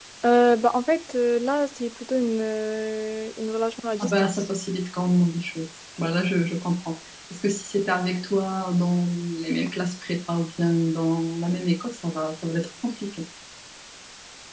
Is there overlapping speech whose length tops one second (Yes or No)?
No